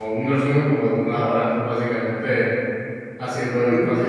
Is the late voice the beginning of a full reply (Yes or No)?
No